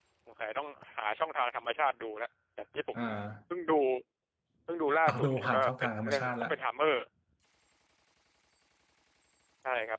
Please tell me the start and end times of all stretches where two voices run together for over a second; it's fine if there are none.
5.1-6.5

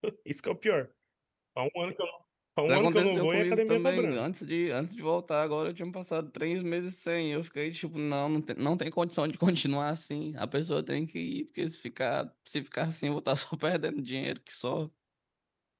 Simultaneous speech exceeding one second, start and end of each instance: 2.7-4.2

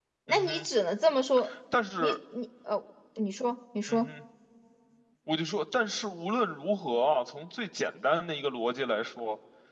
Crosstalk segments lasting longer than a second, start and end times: none

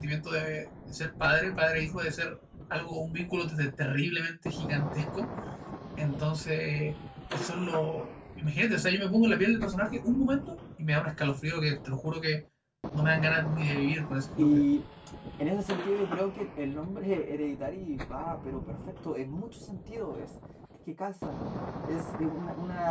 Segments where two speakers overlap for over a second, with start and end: none

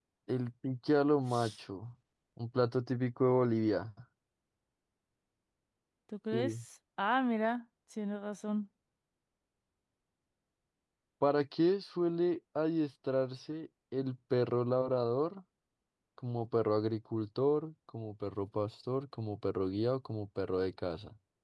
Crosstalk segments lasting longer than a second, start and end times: none

